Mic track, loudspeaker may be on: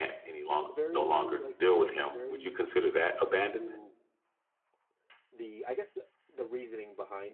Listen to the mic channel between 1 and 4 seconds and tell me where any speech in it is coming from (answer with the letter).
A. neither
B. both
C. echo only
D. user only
B